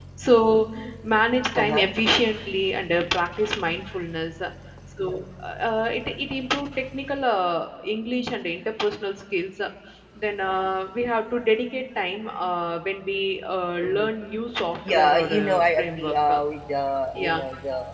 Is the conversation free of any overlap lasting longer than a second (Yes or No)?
No